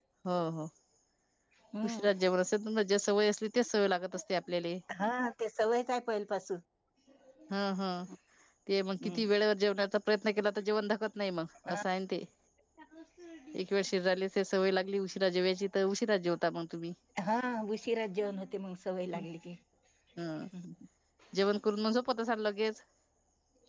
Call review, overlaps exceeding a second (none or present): none